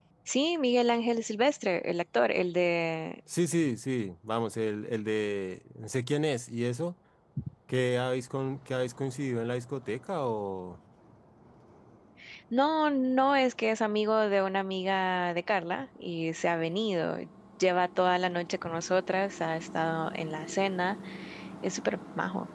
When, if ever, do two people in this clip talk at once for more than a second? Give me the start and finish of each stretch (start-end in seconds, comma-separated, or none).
none